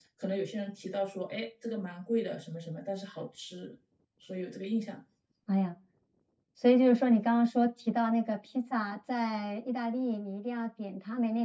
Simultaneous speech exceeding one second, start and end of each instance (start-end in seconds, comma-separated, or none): none